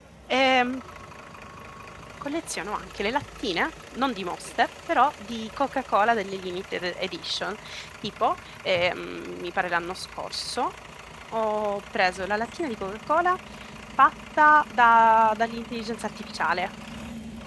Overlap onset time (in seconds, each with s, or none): none